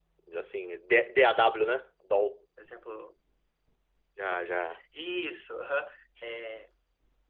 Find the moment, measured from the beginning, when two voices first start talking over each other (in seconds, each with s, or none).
none